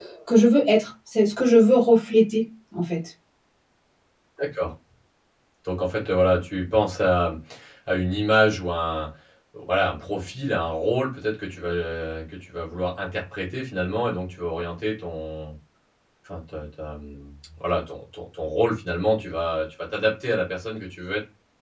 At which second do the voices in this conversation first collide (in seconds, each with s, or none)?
none